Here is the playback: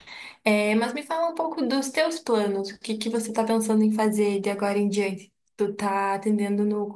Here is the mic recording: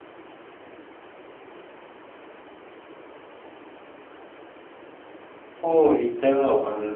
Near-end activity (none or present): present